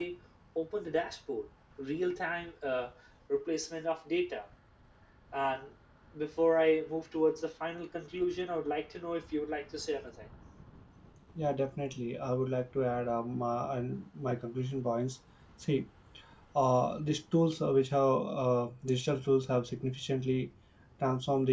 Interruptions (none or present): none